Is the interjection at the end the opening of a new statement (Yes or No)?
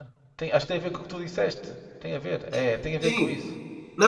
Yes